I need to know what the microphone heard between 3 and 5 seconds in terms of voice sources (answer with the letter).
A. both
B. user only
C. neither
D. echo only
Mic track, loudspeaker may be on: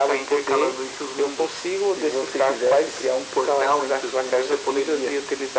D